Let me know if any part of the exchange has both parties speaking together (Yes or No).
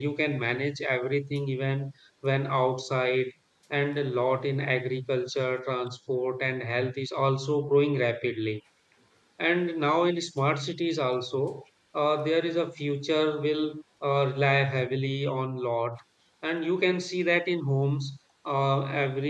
No